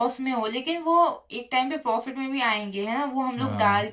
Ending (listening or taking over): listening